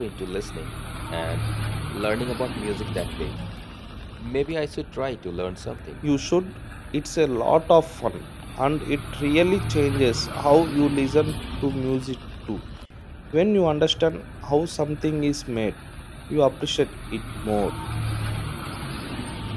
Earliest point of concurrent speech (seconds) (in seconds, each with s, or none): none